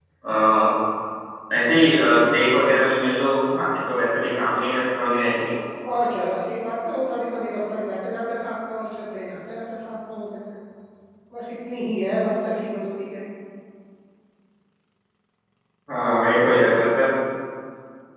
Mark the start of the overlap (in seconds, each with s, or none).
none